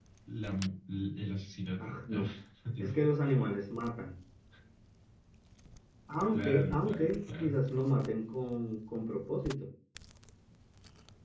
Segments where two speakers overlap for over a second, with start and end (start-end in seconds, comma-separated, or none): 6.3-7.6